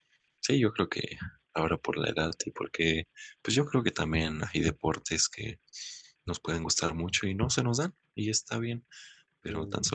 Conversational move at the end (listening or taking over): listening